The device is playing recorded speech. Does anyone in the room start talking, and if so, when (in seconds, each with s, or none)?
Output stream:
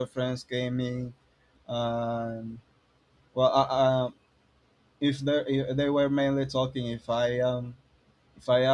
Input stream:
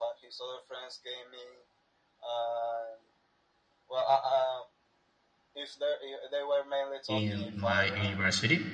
7.1 s